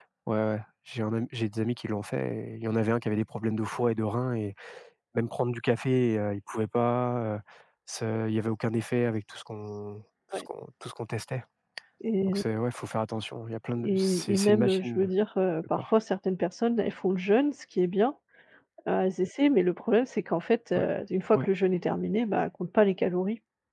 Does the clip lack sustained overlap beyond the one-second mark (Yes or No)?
No